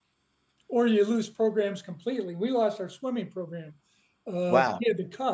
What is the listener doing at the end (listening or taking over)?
listening